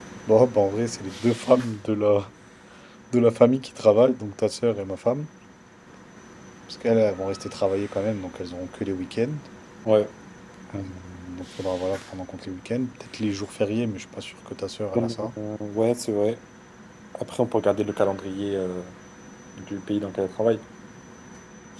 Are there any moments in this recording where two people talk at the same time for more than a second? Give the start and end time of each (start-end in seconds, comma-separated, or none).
none